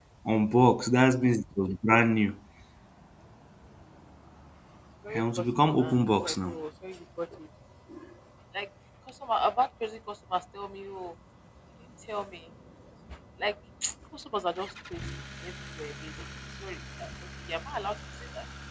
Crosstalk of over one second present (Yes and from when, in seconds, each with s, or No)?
Yes, from 5.1 s